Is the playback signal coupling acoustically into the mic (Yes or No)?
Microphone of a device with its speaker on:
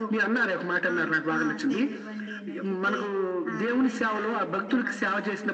Yes